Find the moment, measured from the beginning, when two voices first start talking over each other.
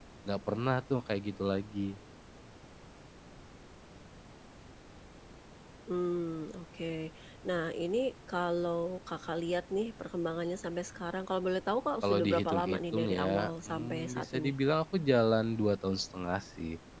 12 s

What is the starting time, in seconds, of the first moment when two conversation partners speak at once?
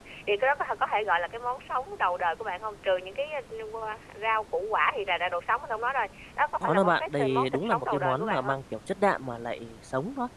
7 s

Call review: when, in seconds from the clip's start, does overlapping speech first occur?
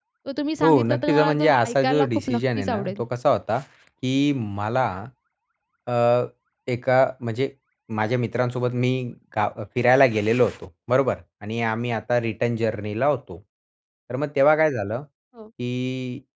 1 s

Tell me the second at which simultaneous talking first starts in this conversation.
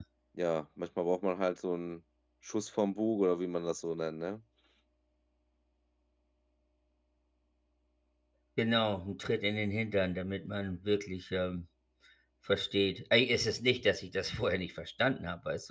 none

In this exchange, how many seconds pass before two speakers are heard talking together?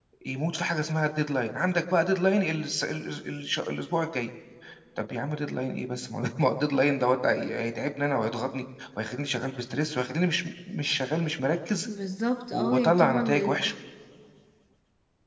13 s

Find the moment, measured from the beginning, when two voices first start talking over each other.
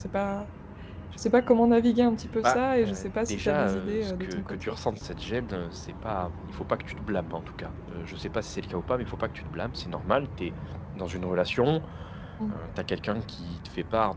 2 s

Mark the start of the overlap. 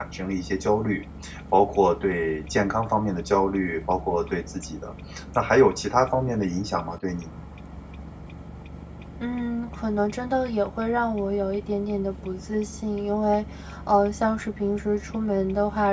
none

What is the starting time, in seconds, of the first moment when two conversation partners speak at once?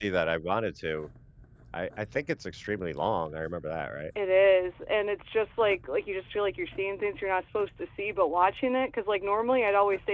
none

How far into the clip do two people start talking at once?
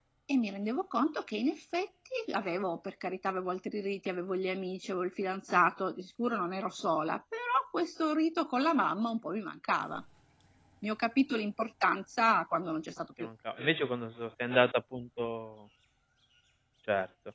none

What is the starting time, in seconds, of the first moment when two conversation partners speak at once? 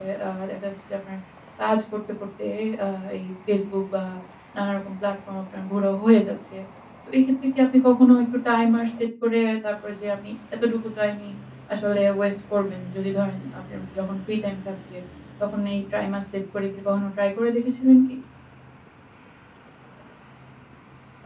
none

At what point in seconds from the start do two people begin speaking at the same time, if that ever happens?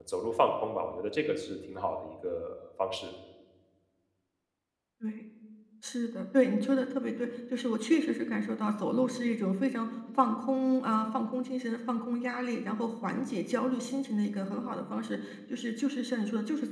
none

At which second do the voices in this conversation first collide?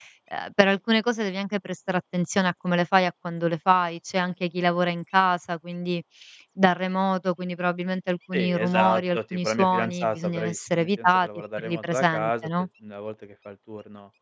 8 s

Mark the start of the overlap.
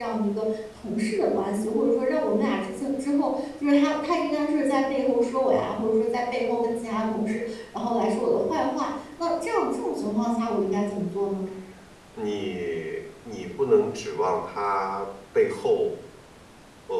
none

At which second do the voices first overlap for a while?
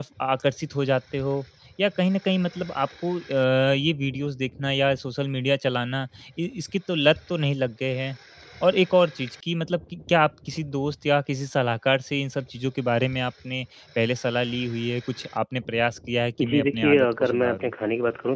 16 s

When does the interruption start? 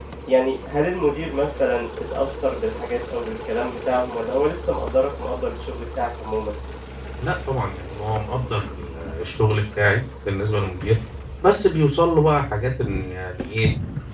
none

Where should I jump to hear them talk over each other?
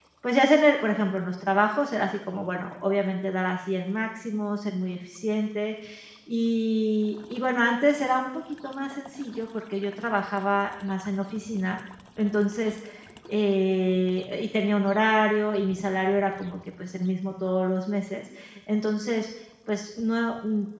none

